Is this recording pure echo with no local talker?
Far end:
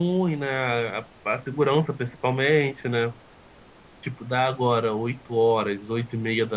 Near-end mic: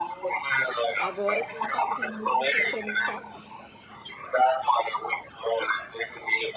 No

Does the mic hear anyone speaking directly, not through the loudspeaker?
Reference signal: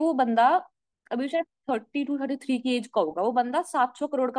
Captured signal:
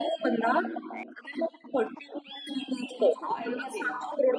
Yes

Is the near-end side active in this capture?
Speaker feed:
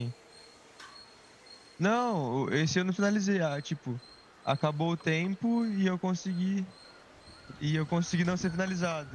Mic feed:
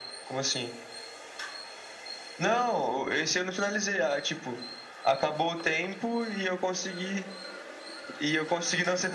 No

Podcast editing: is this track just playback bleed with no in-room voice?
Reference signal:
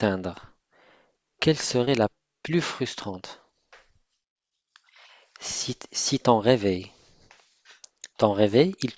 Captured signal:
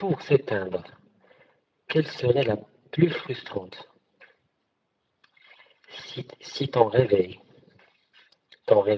Yes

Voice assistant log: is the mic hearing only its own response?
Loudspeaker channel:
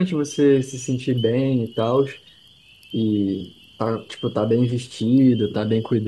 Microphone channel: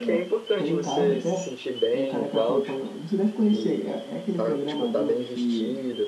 No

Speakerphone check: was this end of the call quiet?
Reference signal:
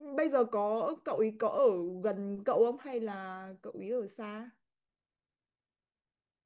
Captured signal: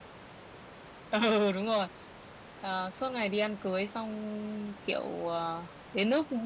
No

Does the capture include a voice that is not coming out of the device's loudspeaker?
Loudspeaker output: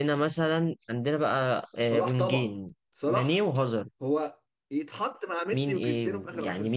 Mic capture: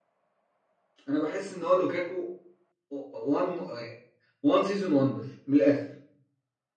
Yes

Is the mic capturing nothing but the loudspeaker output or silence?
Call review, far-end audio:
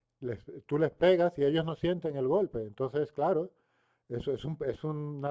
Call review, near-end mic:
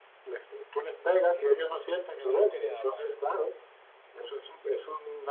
No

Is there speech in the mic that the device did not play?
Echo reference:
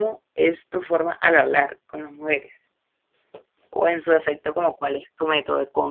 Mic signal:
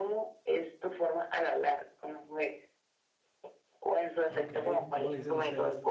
Yes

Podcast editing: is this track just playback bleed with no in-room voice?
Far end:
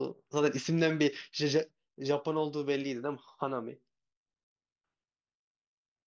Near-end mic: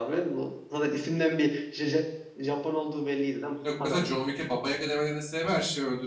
No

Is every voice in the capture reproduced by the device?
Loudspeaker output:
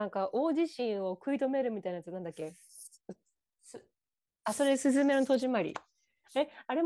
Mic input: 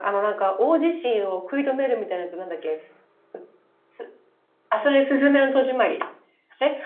Yes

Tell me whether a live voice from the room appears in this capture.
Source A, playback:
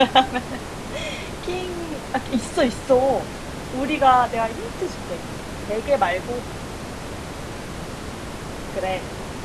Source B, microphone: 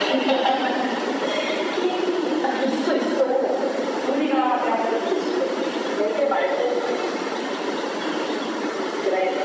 No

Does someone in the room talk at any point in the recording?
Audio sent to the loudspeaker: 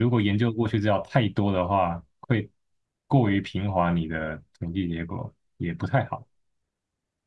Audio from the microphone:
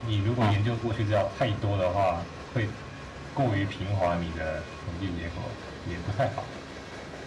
Yes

